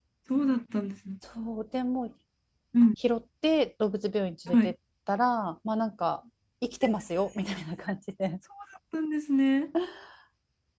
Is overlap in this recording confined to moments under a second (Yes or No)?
Yes